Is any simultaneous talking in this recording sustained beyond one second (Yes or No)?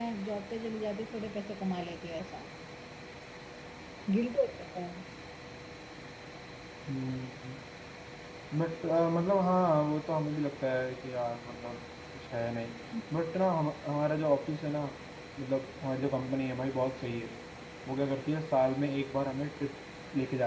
No